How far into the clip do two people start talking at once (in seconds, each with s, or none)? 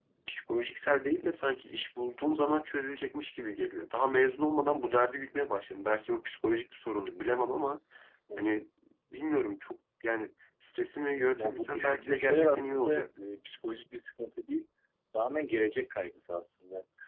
11.4 s